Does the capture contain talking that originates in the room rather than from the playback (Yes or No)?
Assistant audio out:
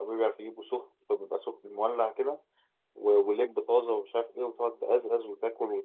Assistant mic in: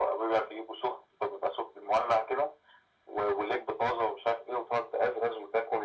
No